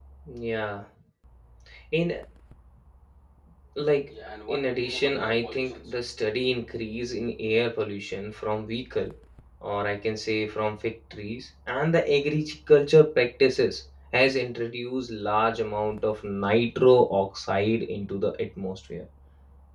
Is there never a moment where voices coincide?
No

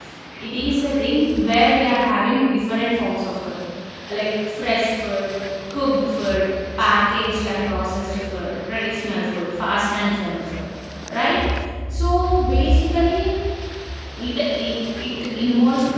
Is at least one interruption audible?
No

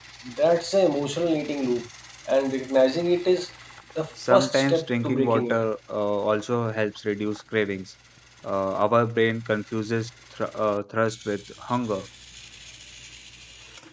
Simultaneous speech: Yes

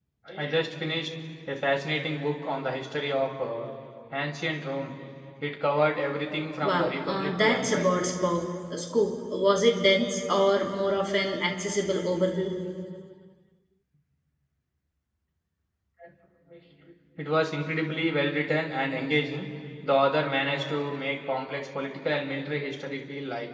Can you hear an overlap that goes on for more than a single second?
Yes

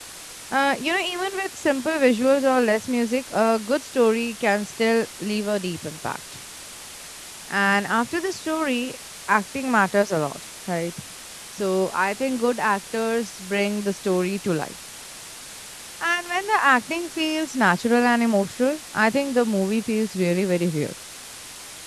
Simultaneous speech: No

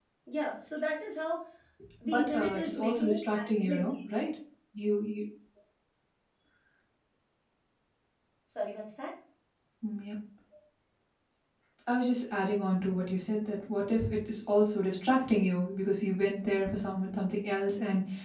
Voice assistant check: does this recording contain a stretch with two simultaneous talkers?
Yes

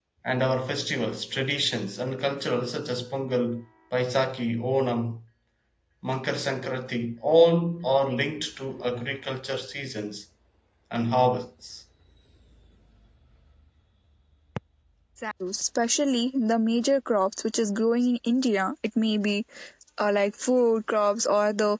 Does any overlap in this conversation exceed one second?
No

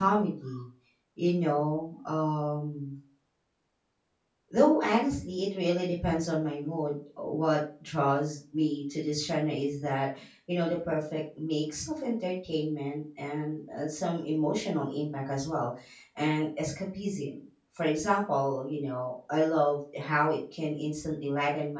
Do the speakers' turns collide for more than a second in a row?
No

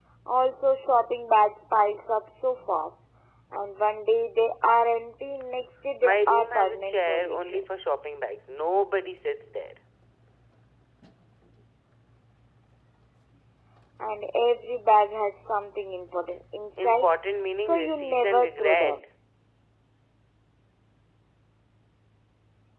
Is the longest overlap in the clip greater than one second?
Yes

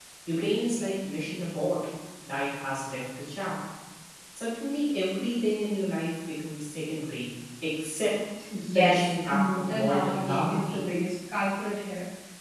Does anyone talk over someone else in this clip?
Yes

